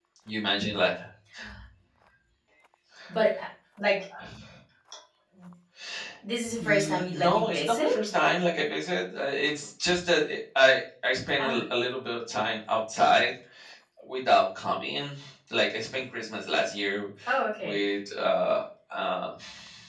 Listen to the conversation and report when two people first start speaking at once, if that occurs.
6.6 s

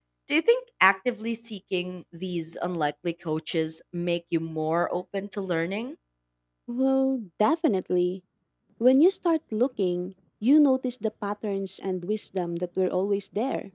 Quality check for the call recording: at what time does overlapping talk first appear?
none

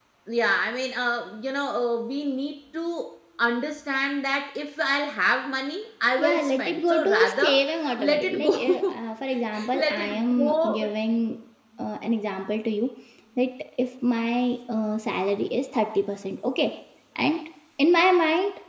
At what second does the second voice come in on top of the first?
6.2 s

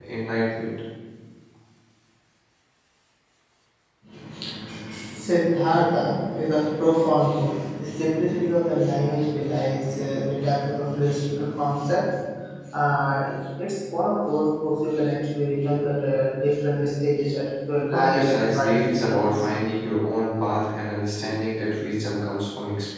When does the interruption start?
17.9 s

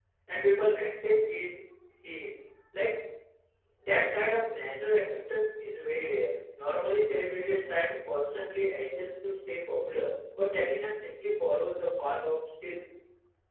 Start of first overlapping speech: none

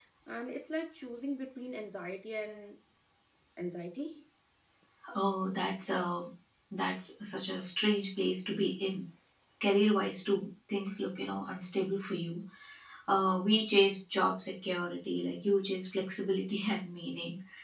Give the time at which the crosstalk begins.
none

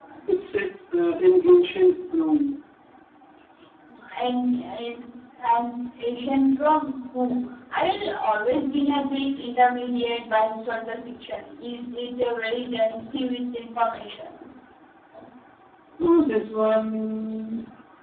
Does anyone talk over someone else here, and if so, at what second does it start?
none

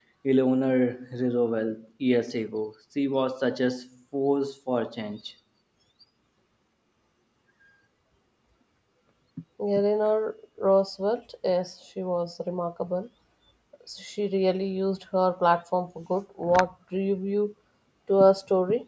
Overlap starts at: none

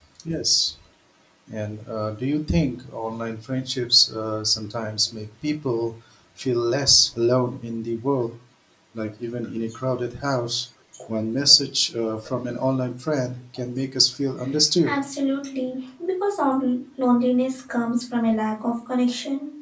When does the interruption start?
none

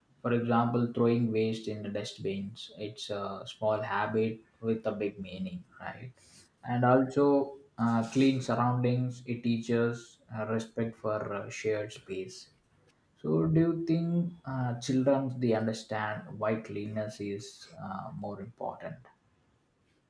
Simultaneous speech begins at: none

